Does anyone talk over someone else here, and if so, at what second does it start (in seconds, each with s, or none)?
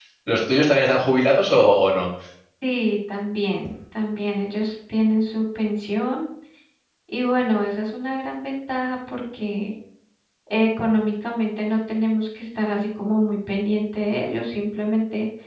none